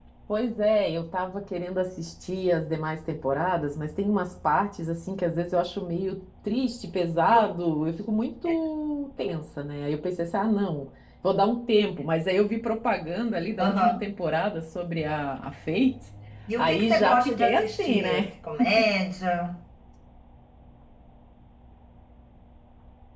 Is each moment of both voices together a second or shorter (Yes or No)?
No